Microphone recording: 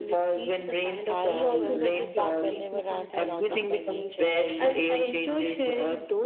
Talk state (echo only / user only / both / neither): both